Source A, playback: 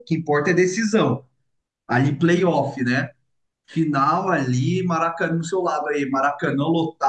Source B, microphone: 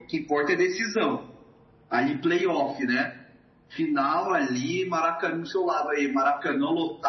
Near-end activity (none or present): none